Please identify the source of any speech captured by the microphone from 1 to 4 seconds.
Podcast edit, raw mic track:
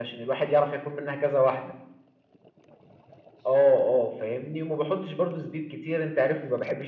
echo only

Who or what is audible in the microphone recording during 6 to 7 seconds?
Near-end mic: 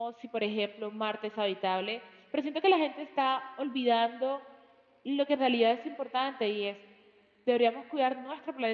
user only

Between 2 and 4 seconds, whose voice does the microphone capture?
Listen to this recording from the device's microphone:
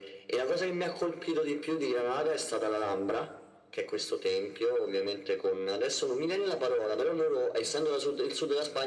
echo only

